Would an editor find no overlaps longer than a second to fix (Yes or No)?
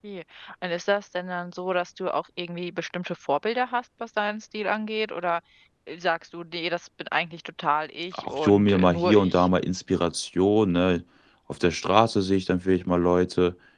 No